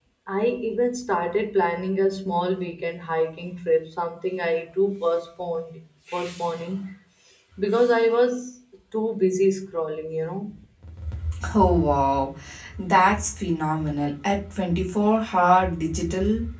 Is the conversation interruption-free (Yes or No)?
Yes